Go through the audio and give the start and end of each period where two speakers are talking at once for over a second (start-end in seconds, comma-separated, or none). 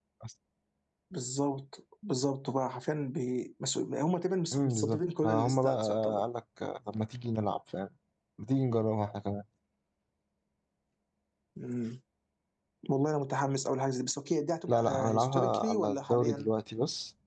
4.5-6.2, 14.7-16.5